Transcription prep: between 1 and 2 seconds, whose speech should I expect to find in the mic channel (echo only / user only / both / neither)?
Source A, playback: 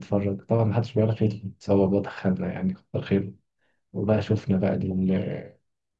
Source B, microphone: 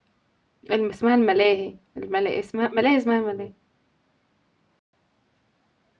user only